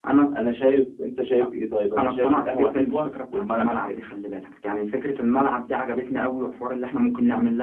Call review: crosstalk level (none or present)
present